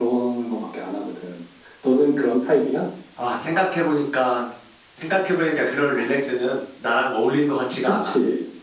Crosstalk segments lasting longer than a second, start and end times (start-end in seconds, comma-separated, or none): none